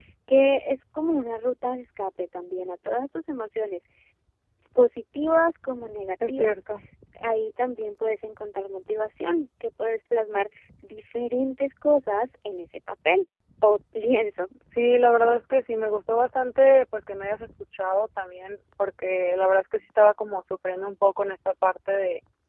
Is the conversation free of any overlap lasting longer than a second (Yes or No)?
Yes